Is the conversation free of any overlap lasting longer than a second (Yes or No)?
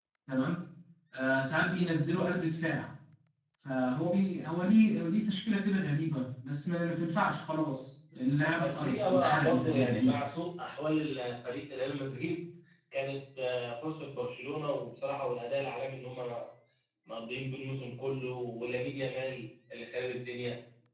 No